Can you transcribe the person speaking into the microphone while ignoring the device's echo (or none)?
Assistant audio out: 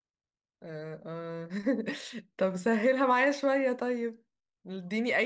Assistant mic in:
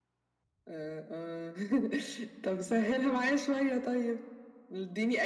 none